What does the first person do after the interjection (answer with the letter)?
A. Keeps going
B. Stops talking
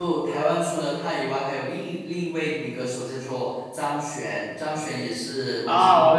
B